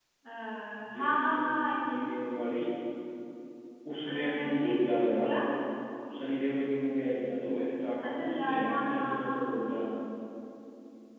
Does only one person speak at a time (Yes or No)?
No